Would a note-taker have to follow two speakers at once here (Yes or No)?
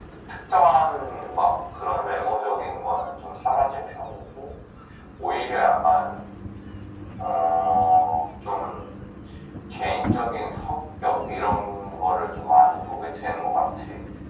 No